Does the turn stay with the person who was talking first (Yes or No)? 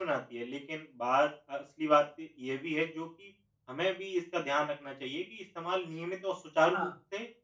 Yes